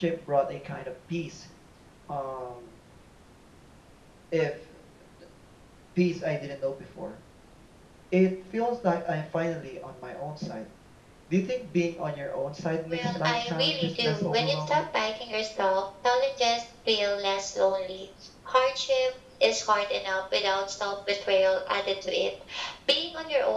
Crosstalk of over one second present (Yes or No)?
Yes